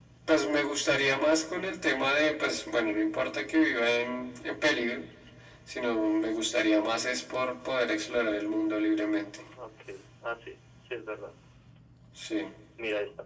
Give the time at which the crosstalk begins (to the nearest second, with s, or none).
none